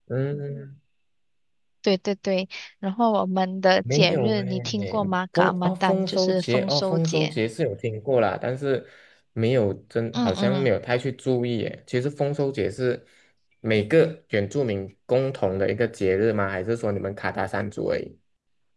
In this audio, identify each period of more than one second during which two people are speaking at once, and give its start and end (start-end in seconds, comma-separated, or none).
3.9-7.3